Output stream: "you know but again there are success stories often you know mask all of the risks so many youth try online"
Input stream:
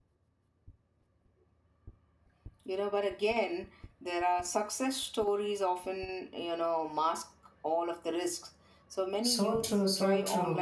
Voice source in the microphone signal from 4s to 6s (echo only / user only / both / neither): echo only